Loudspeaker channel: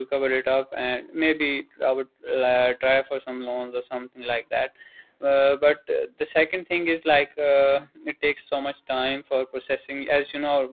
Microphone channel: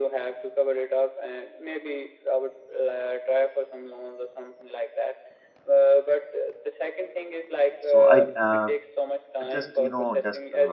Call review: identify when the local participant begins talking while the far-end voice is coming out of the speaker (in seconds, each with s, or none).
7.9 s